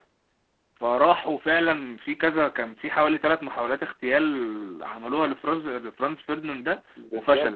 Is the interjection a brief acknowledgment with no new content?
No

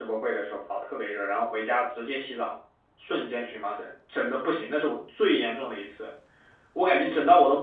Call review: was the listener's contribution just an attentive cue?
Yes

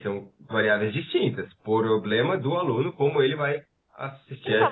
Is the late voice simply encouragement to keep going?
No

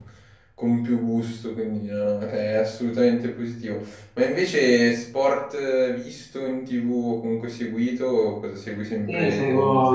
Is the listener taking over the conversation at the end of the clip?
Yes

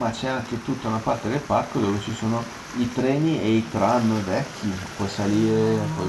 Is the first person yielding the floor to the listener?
Yes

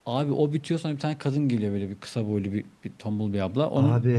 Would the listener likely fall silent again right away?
No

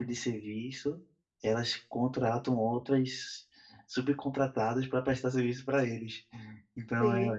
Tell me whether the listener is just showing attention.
Yes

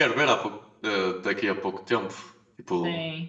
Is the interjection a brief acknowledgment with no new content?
Yes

